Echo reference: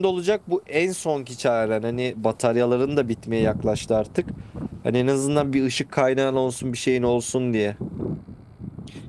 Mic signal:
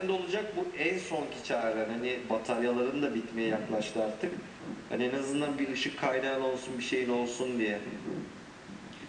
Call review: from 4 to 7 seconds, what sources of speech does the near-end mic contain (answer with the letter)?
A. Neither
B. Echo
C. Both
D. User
B